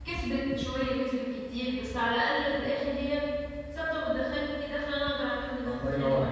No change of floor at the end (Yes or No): No